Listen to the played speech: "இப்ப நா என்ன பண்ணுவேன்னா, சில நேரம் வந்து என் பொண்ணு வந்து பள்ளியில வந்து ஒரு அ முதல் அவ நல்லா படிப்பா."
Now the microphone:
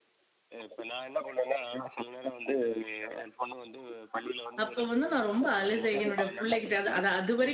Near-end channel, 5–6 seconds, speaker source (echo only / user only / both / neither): both